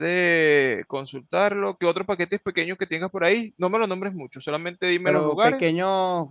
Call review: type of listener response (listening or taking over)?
taking over